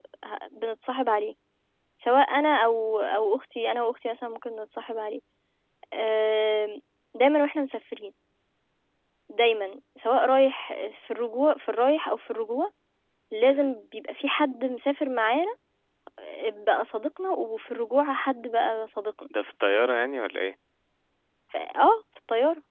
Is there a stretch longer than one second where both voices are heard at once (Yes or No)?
No